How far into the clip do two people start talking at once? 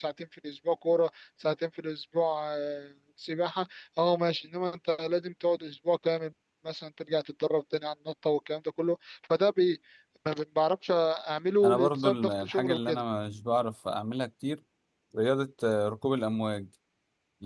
11.6 s

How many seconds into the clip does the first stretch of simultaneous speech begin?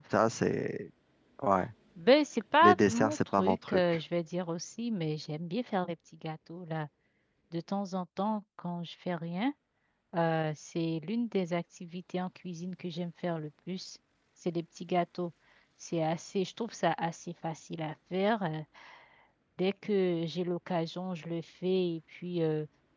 2.6 s

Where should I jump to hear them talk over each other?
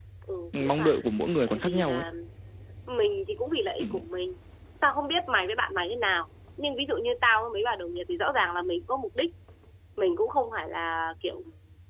0.6 s

